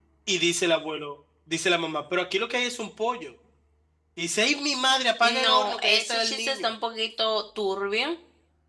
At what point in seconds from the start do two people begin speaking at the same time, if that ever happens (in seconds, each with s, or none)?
5.2 s